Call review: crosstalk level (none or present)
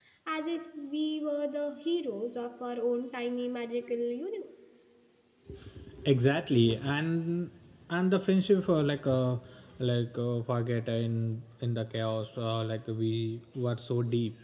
none